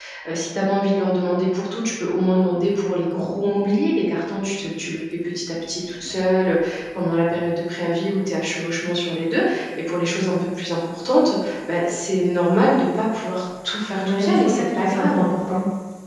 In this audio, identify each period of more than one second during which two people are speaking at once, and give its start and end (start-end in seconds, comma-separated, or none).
14.0-15.2